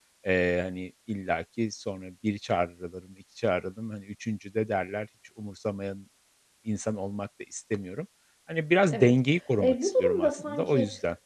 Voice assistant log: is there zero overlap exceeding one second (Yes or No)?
No